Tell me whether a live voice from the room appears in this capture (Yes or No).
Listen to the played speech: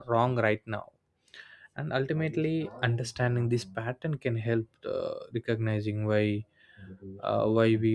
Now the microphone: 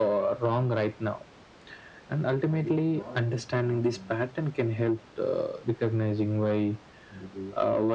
No